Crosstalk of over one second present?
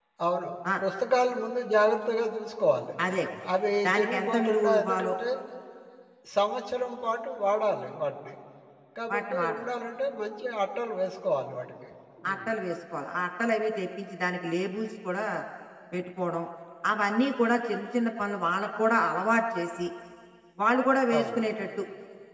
Yes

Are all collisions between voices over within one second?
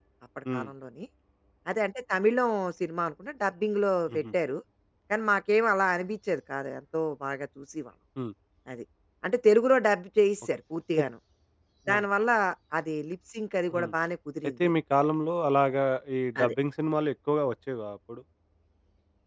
Yes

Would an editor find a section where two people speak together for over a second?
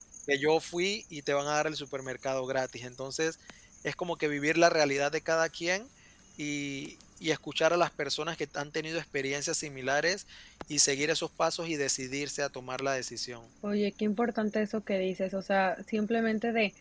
No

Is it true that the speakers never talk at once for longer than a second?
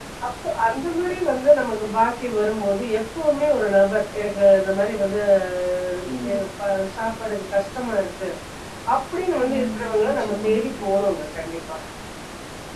No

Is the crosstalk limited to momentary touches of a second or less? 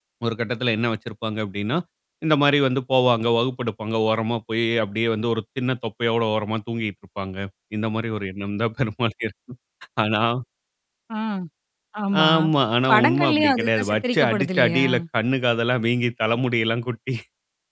No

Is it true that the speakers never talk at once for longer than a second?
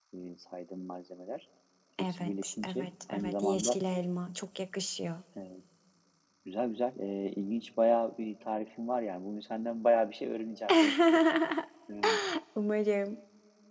No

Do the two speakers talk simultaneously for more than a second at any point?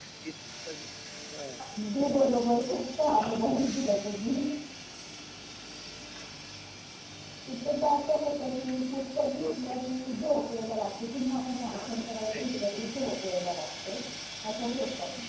Yes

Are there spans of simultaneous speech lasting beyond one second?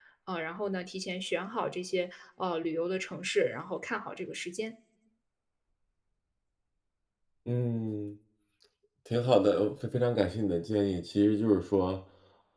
No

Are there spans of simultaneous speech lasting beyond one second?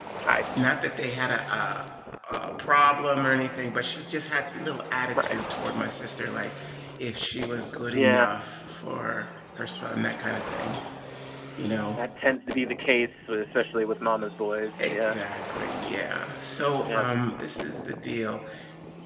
No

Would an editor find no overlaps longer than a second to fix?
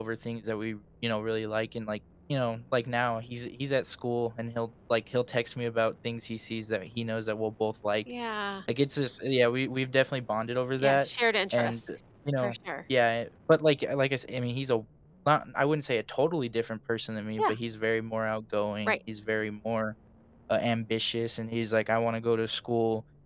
Yes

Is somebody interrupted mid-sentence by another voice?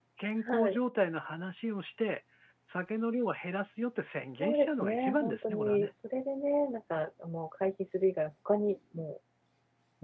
Yes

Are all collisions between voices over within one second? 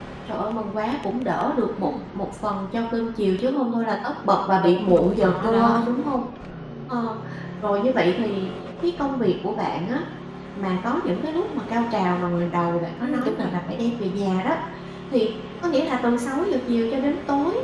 No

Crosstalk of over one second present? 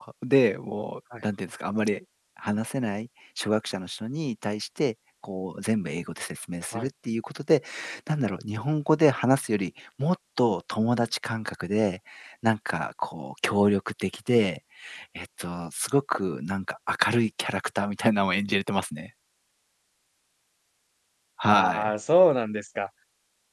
No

